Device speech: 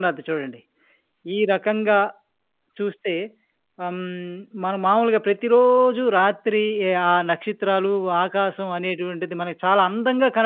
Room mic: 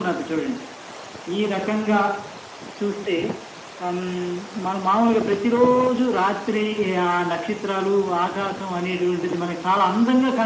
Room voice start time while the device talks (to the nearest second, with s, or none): none